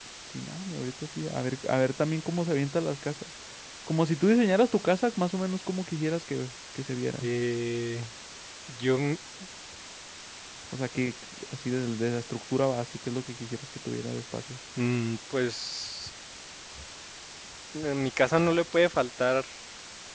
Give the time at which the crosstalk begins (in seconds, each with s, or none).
none